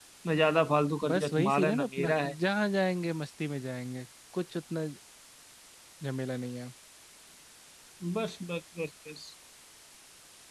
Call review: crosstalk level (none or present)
present